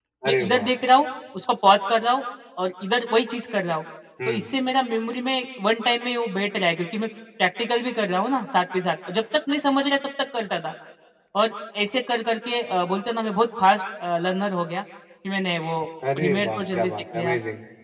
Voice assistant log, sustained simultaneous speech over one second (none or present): present